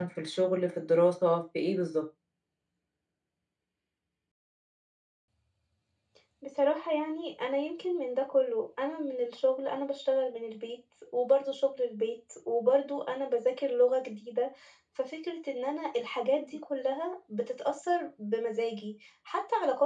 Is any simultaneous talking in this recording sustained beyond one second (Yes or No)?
No